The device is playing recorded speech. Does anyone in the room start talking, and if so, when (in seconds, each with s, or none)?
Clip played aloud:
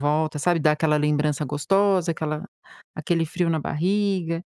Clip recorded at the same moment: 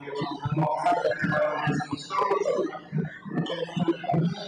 none